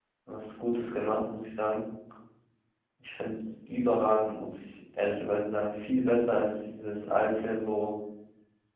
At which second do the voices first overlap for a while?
none

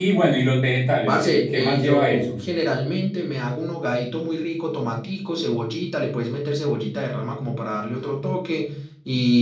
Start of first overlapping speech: 1.1 s

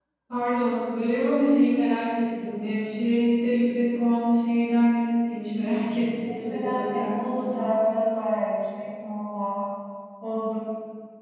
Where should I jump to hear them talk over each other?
6.2 s

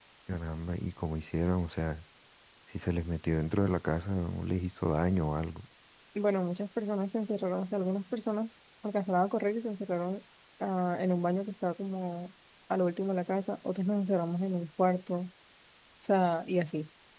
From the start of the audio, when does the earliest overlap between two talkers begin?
none

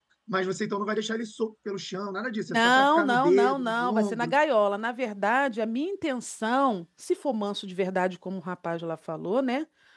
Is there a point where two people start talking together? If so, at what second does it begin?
2.5 s

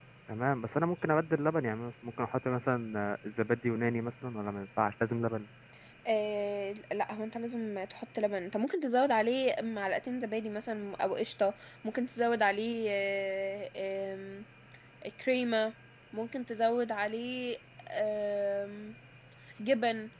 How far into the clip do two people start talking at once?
none

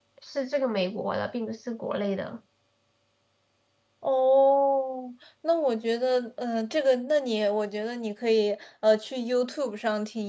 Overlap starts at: none

